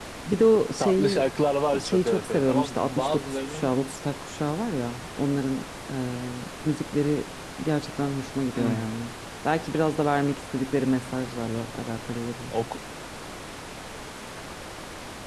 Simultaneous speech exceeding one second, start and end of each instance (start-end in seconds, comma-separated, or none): 1.9-3.7